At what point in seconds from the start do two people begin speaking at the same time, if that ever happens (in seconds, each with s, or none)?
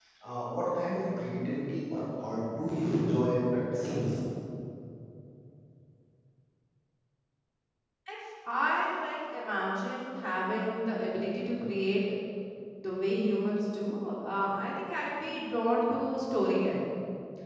none